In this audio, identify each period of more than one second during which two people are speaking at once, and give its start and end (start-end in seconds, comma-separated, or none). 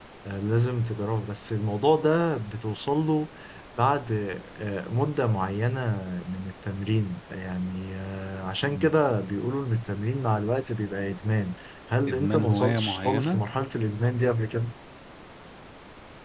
12.1-13.4